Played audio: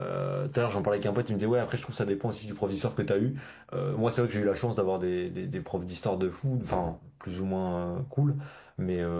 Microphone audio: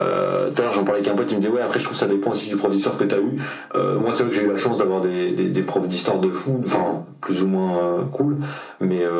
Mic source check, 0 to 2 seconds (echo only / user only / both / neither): echo only